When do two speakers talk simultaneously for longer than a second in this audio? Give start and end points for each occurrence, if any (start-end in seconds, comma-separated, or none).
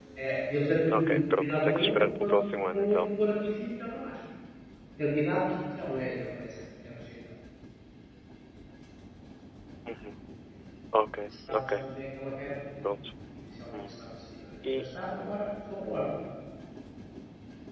0.9-3.0